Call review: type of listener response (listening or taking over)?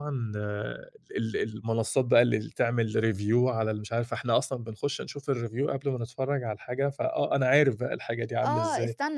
taking over